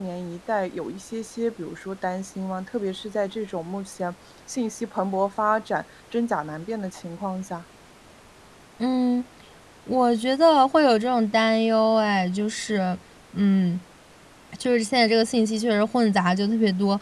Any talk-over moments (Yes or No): No